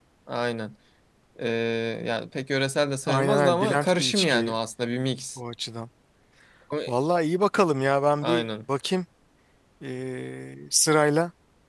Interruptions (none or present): present